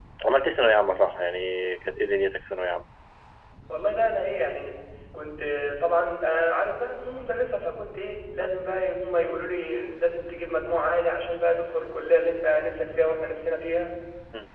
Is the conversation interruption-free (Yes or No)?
Yes